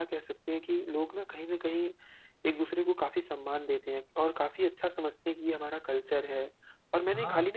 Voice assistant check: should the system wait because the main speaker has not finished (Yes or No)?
Yes